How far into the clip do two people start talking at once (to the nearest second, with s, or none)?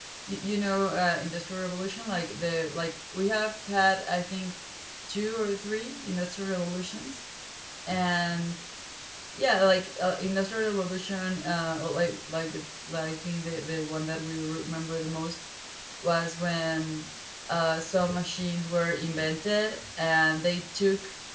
none